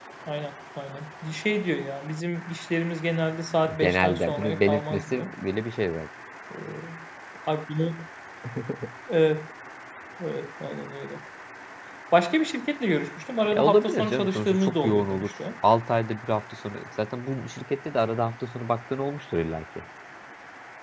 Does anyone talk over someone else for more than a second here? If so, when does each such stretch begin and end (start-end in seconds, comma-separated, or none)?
3.8-5.3, 13.6-15.3